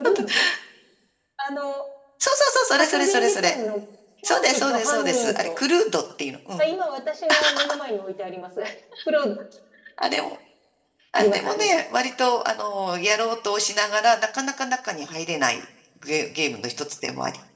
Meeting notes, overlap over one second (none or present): present